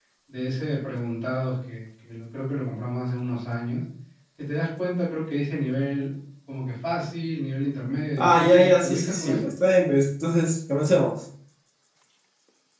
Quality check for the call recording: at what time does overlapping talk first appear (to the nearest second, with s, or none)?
8 s